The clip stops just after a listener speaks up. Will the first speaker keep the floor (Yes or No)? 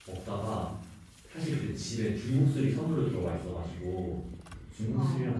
Yes